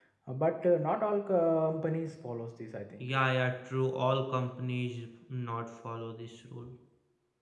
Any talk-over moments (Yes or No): No